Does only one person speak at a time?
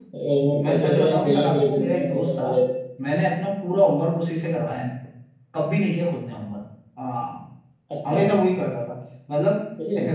No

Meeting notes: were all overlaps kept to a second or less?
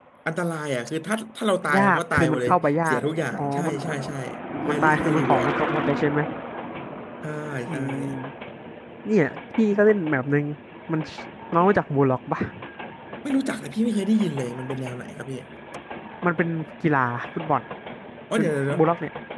No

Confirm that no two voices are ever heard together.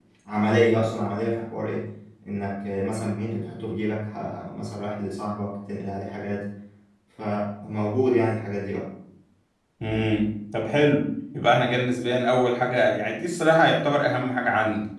Yes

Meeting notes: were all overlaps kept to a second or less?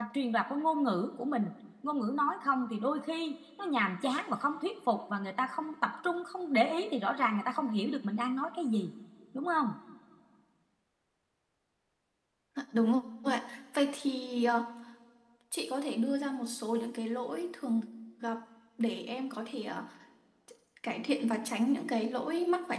Yes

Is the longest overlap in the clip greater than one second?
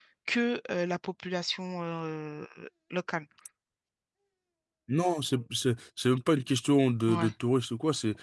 No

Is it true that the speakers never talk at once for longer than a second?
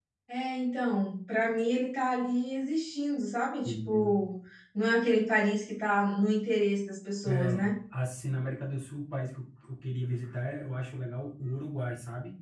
Yes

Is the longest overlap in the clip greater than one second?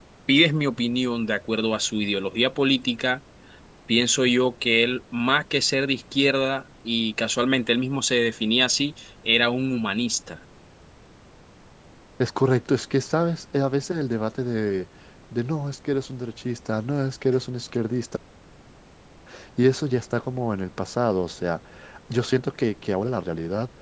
No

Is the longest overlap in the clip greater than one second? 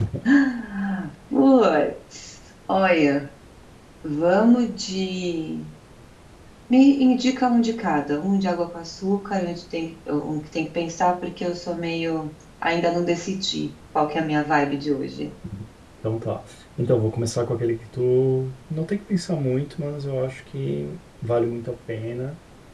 No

